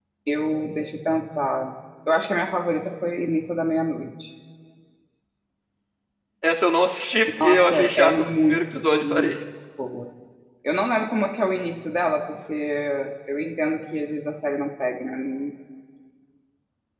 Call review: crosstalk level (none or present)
present